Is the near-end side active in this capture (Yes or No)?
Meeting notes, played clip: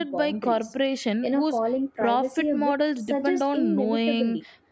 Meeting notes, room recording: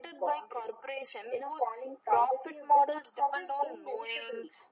No